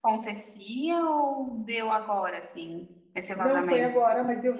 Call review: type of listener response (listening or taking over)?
taking over